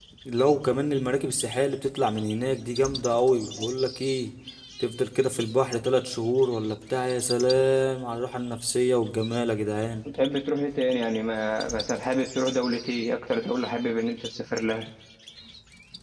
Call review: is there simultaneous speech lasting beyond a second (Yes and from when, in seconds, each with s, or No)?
No